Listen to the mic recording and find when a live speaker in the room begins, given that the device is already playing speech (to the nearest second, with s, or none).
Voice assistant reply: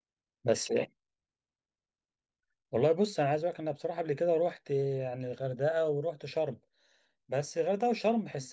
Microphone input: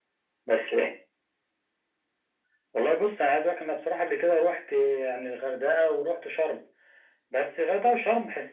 none